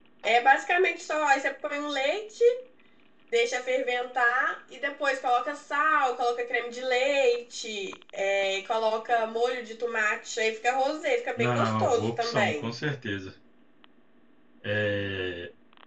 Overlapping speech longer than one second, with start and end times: 11.4-12.7

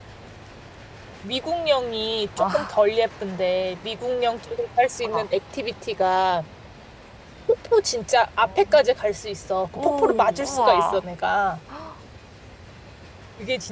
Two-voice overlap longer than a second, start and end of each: 9.8-11.0

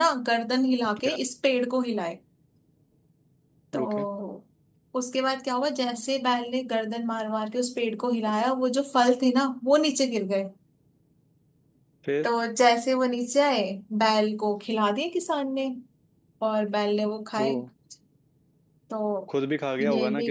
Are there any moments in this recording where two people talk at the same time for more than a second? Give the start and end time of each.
none

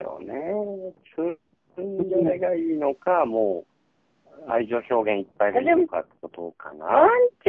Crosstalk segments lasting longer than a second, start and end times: none

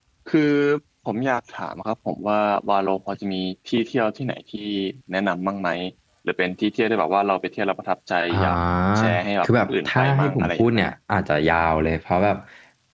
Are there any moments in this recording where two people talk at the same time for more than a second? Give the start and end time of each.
9.4-10.9

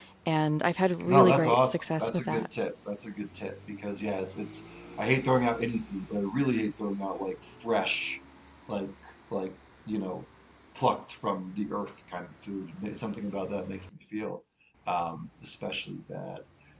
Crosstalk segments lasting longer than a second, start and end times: 1.1-2.5

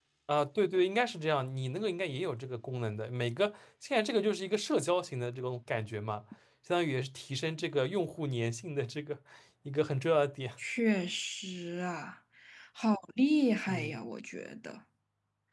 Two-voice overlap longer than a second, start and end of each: none

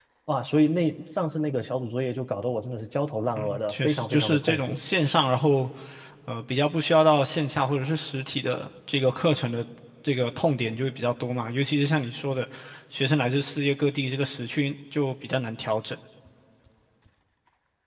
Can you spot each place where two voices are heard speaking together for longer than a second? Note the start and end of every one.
3.4-4.8

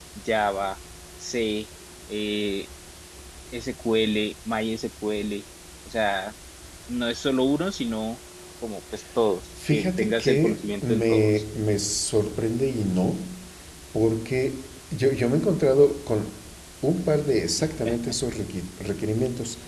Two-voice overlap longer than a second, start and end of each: 9.7-11.4

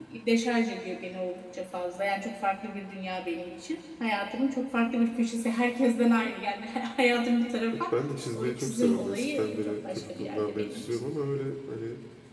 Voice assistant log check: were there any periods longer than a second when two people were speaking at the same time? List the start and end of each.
8.3-11.0

